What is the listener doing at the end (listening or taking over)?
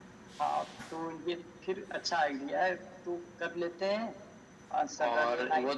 taking over